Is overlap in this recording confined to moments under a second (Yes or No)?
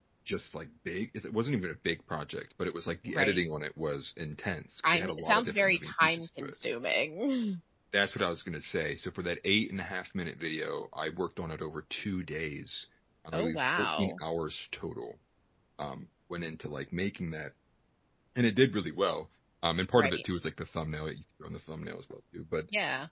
No